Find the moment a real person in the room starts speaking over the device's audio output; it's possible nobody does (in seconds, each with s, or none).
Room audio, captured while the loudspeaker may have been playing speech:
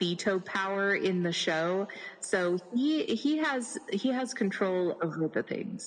none